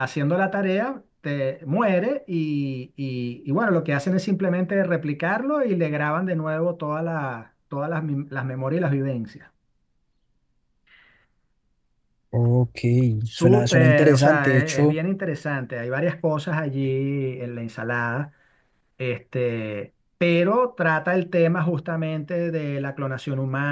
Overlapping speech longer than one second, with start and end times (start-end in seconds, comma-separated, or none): 13.3-15.0